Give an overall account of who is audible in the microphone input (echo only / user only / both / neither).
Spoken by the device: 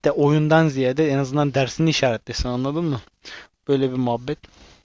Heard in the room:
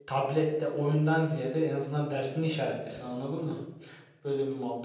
echo only